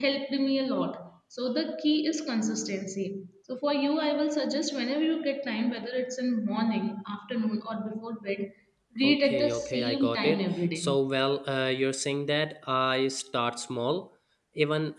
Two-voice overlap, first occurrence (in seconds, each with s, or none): 9.0 s